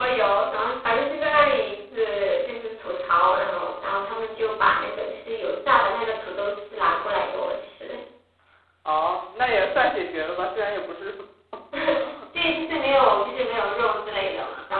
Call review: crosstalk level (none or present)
none